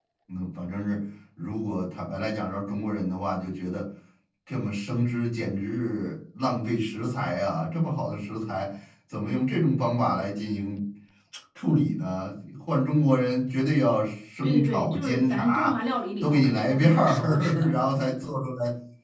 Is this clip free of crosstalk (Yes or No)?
No